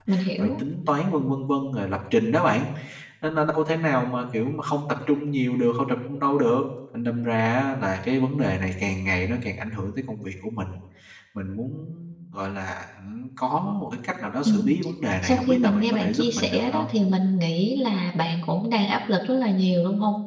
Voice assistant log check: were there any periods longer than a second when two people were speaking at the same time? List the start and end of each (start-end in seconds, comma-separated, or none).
15.2-16.9